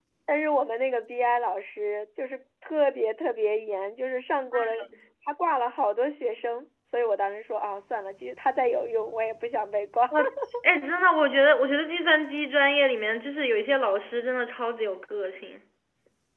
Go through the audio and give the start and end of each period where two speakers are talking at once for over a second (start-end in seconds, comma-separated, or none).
none